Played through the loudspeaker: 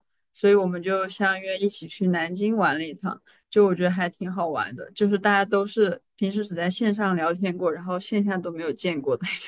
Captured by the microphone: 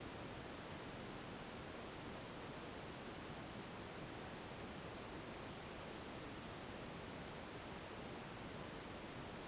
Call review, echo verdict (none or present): none